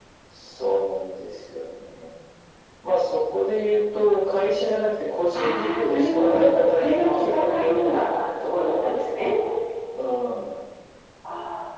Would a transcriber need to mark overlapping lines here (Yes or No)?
Yes